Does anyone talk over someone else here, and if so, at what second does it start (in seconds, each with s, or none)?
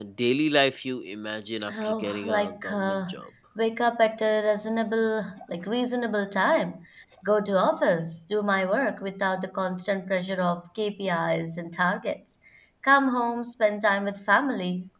1.6 s